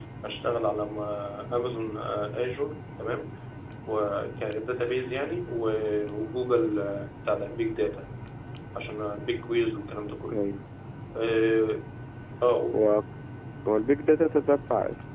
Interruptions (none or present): none